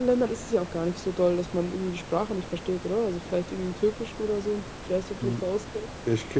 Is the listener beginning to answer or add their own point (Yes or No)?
Yes